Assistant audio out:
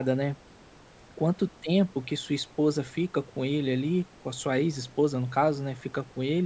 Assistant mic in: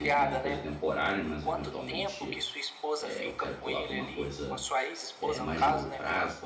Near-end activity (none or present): present